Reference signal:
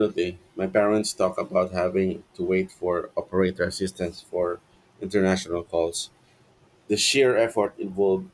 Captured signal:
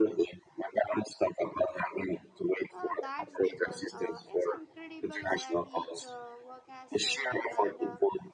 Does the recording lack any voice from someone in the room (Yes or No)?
No